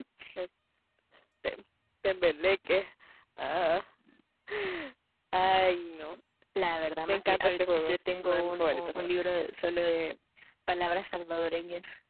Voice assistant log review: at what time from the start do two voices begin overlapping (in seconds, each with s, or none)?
7.1 s